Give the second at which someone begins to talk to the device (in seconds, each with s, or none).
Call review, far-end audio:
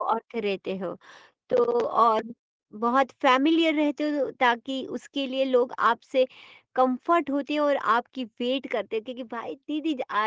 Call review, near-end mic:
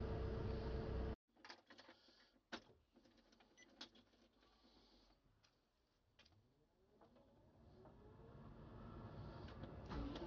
none